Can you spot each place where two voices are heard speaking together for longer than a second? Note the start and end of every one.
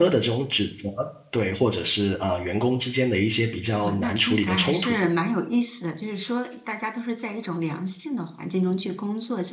3.8-5.0

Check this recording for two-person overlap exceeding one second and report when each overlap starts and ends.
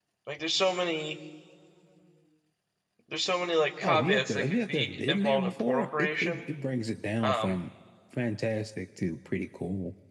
3.8-6.4

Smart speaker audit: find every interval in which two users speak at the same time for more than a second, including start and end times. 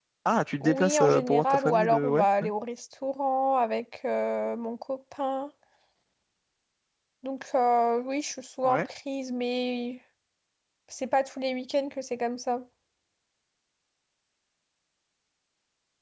0.6-2.3

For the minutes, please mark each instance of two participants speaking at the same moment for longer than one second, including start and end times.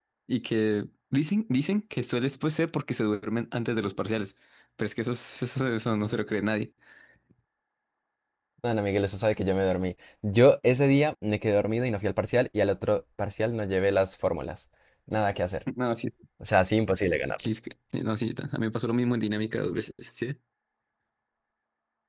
none

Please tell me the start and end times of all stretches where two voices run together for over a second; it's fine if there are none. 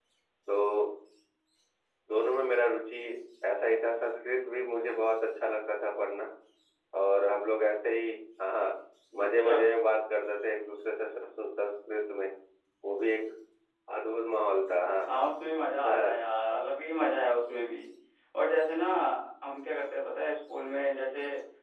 none

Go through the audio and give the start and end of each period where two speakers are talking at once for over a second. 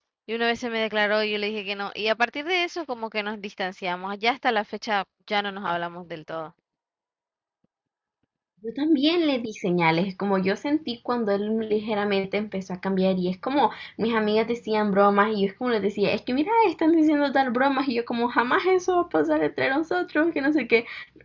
none

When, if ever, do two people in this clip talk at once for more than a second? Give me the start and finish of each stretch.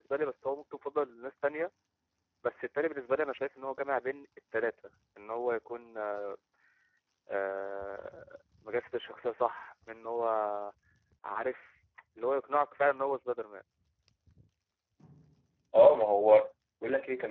none

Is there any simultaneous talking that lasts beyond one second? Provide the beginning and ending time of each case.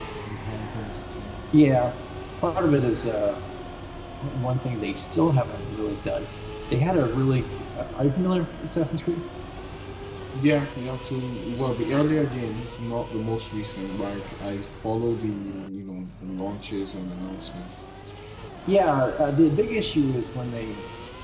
none

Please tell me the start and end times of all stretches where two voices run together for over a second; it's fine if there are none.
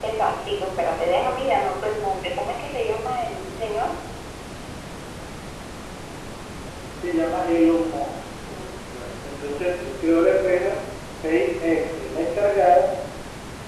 none

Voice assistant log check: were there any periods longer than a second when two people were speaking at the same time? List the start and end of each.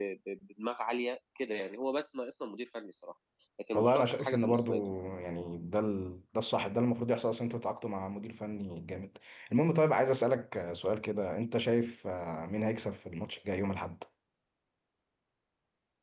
3.7-5.0

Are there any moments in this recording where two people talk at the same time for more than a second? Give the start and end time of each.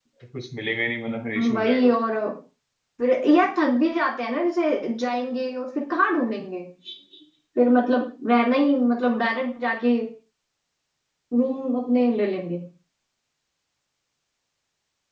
none

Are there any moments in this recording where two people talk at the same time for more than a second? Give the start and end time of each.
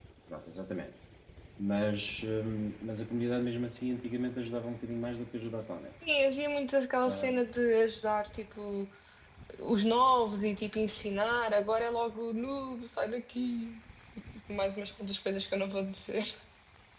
none

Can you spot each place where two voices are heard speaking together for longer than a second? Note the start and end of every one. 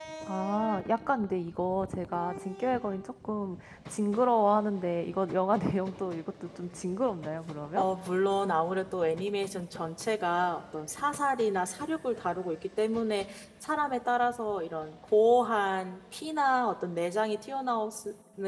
none

